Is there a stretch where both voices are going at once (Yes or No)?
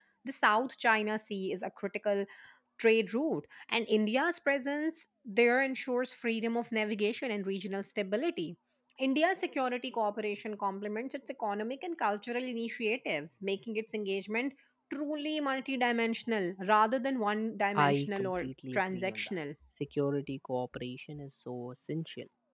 Yes